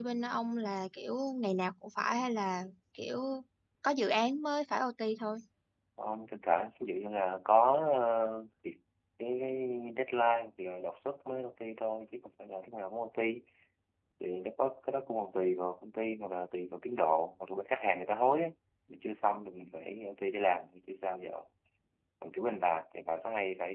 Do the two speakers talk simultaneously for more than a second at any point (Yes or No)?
No